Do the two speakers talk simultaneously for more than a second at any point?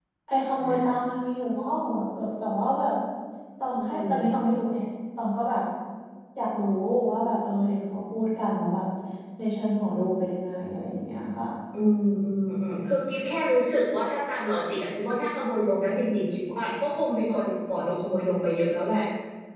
No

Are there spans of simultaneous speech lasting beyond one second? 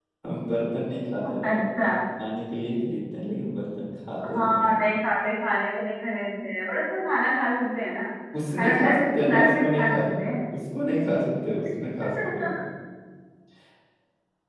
Yes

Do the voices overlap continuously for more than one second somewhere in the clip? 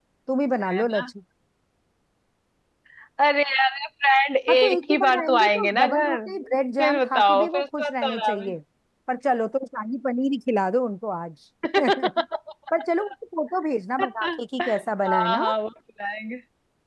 Yes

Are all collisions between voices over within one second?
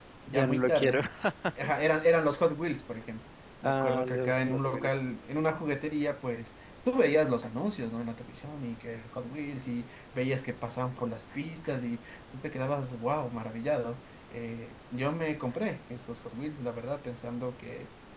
No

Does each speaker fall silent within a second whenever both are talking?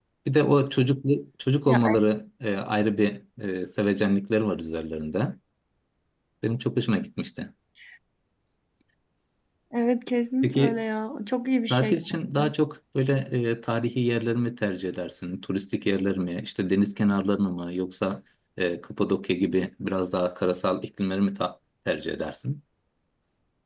Yes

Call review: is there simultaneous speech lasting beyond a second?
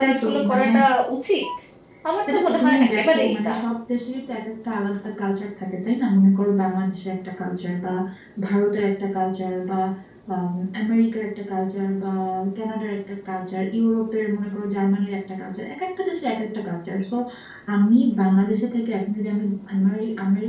Yes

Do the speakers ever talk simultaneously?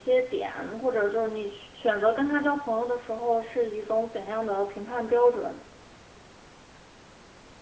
No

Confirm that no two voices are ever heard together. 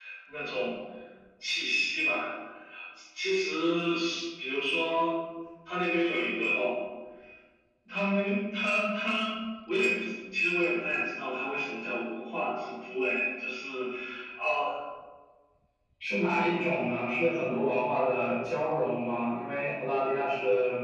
Yes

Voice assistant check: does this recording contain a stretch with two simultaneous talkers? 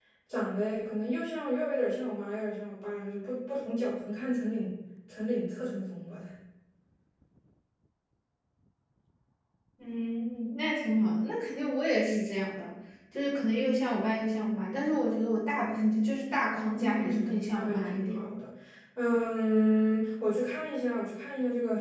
Yes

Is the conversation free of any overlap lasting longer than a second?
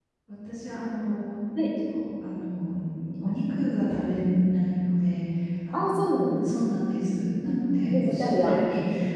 No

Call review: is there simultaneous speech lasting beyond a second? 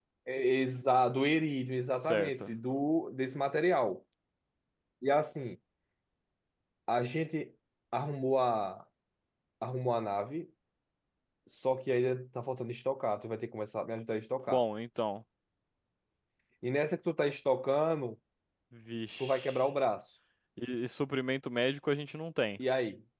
No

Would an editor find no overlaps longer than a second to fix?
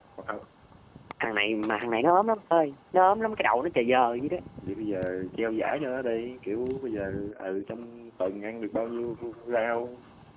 Yes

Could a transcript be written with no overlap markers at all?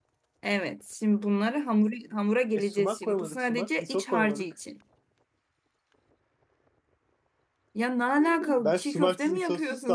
No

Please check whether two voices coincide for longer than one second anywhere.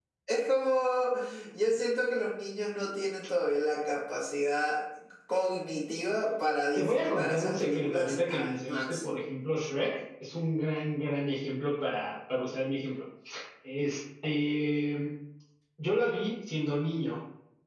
Yes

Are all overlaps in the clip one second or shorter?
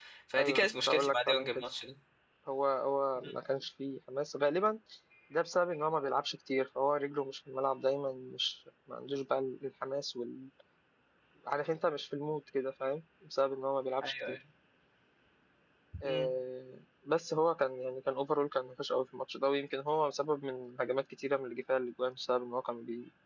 No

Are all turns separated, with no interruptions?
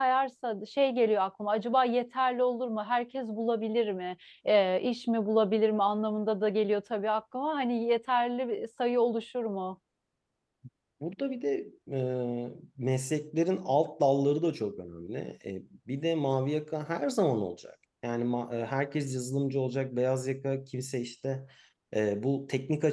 Yes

